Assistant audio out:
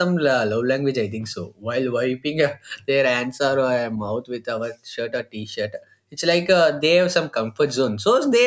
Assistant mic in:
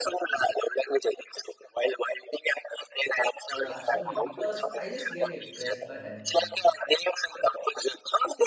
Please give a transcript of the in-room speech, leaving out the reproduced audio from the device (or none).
uh, us only because i just get impressed but uh,